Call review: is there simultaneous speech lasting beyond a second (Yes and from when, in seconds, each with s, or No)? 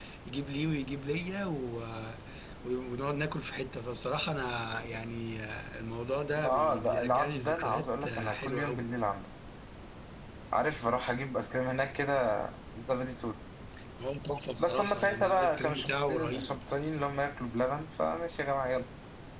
Yes, from 6.4 s